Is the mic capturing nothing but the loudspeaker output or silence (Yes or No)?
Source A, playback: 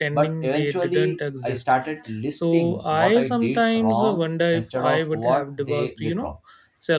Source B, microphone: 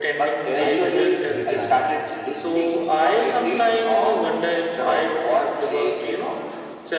No